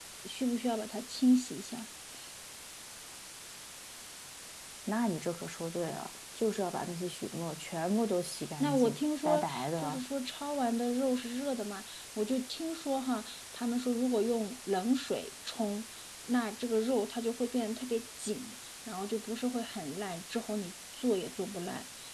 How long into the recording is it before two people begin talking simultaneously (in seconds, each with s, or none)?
8.6 s